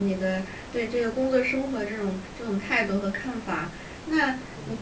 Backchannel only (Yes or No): Yes